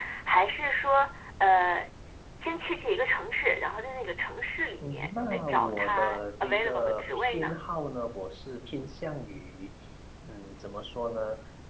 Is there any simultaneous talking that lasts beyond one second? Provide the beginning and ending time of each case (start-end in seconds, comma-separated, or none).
4.8-7.6